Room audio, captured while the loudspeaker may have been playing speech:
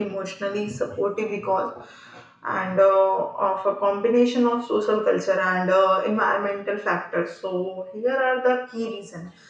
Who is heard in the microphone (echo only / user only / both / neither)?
user only